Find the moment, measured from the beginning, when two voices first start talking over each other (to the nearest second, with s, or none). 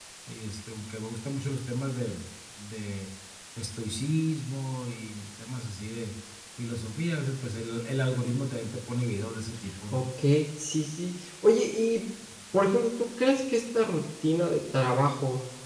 none